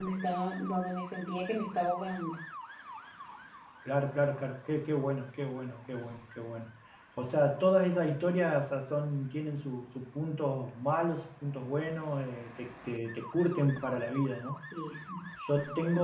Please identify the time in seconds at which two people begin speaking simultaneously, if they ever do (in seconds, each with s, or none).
none